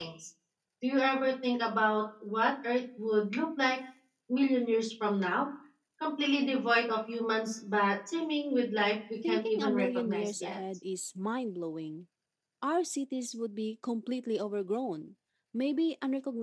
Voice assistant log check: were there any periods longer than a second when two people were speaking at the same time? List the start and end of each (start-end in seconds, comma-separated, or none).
9.3-10.6